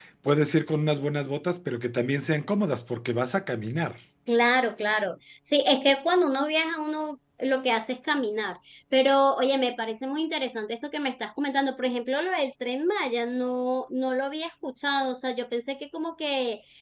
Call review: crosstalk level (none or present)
none